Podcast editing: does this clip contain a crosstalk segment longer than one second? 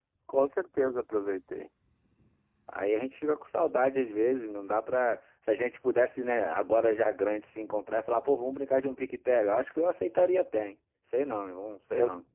No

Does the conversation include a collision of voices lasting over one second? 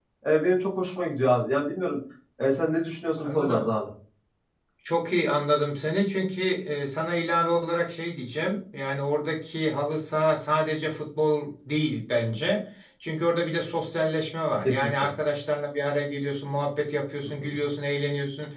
No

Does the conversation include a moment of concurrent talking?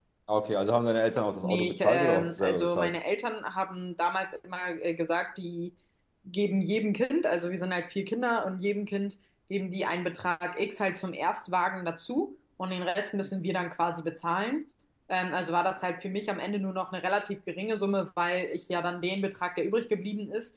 Yes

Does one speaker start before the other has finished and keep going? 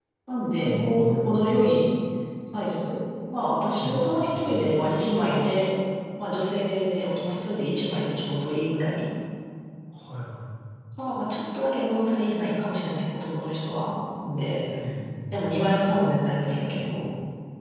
Yes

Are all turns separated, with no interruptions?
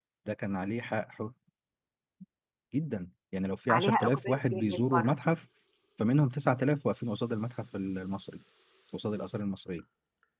No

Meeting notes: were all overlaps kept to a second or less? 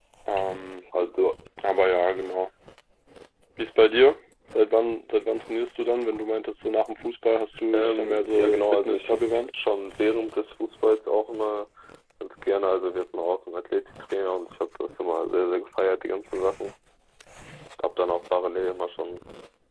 No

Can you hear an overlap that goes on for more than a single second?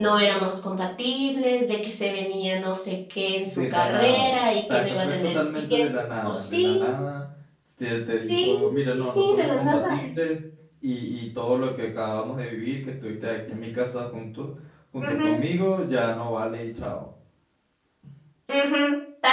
Yes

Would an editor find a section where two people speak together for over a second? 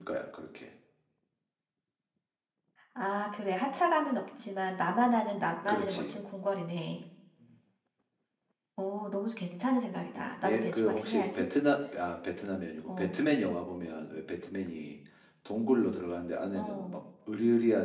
Yes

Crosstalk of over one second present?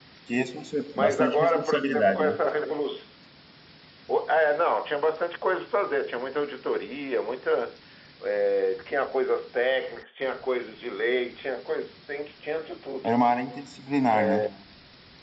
Yes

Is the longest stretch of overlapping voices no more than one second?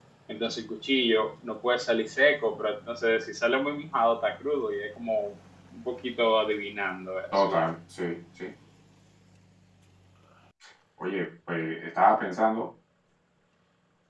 Yes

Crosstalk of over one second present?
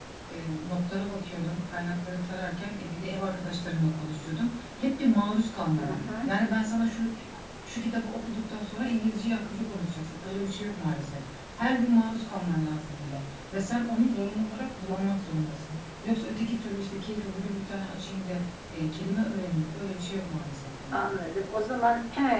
No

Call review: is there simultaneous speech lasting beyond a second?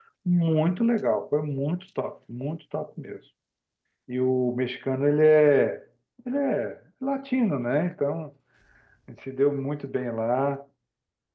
No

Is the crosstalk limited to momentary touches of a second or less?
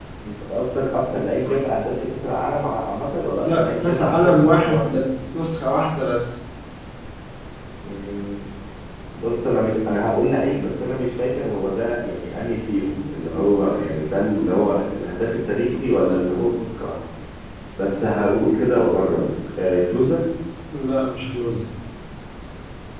No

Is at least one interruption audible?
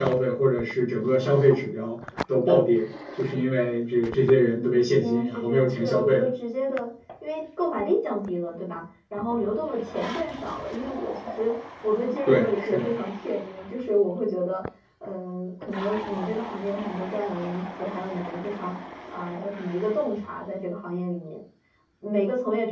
Yes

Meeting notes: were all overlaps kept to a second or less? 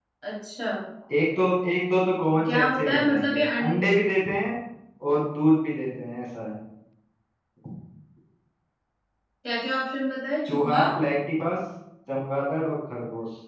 No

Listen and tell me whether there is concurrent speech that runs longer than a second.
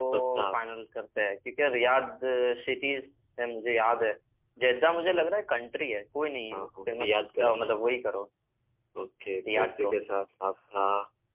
Yes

